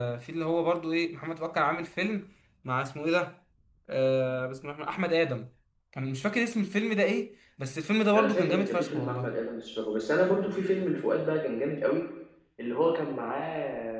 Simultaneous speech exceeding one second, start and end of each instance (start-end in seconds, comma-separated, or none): 8.1-9.4